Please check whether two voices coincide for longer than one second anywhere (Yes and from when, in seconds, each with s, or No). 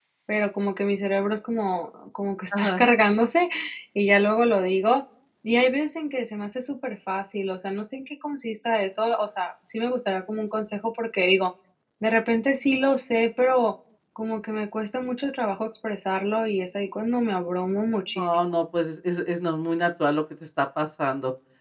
No